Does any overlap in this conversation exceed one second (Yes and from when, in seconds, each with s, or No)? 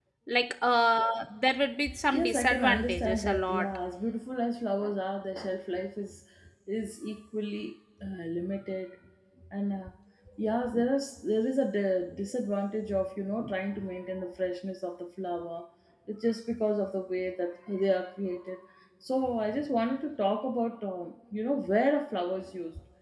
Yes, from 2.1 s